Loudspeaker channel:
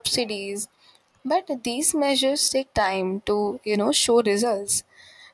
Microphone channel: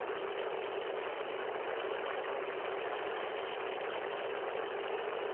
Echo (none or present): none